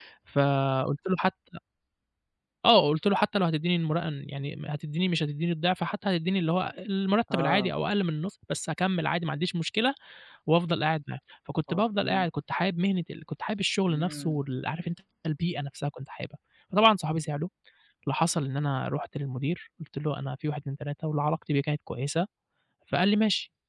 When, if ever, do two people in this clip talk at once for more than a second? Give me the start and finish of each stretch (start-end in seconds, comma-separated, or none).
none